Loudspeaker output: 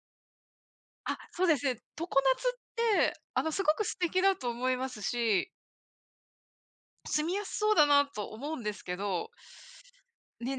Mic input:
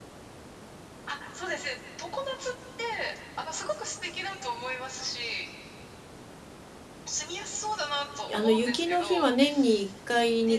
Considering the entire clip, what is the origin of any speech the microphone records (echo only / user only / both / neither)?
both